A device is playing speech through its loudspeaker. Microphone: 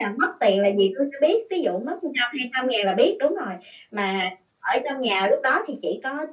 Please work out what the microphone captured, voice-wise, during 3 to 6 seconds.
echo only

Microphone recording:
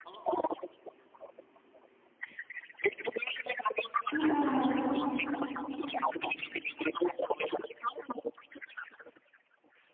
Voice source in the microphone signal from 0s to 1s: echo only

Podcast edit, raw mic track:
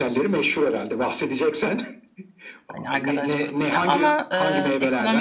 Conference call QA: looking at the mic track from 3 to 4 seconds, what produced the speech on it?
both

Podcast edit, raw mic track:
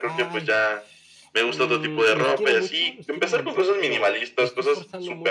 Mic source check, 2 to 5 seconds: both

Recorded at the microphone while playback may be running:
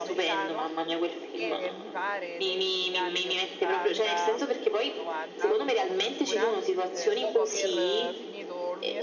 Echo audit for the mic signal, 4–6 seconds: both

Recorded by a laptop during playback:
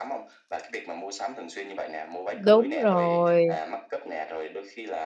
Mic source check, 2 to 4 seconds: both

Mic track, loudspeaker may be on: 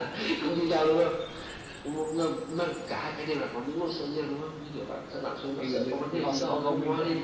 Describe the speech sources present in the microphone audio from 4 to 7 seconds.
both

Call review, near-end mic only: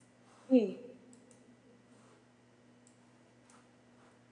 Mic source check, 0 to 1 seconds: user only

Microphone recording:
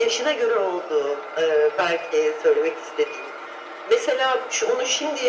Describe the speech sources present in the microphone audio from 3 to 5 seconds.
echo only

